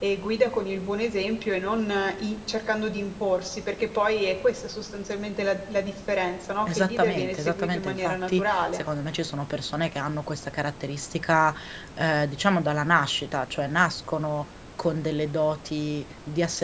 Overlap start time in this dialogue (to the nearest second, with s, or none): 7 s